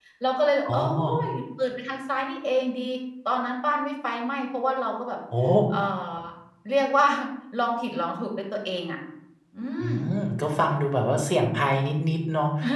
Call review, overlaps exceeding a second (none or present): none